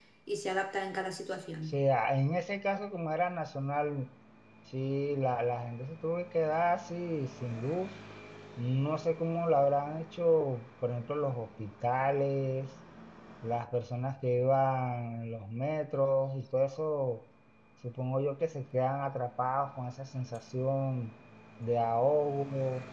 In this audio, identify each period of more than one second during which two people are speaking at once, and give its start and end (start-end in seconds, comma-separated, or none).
none